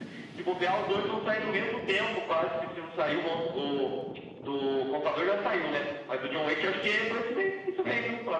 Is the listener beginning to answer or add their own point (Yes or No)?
Yes